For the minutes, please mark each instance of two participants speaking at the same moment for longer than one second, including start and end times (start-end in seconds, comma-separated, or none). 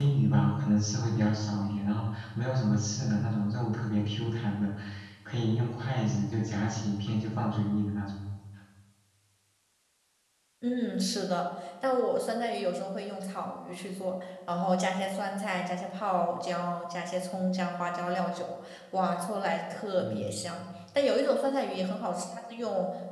none